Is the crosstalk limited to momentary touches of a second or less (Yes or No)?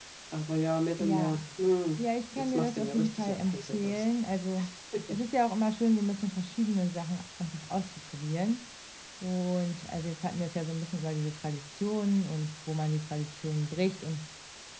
No